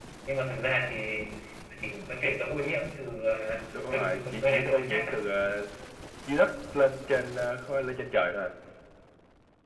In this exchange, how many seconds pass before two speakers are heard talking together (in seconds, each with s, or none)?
3.7 s